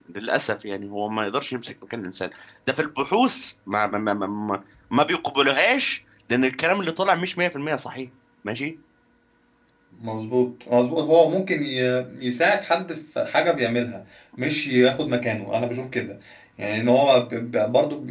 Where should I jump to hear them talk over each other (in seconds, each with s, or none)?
none